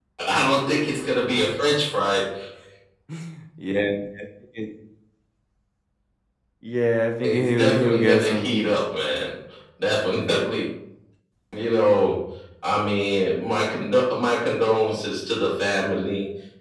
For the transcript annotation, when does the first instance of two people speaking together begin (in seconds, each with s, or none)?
7.2 s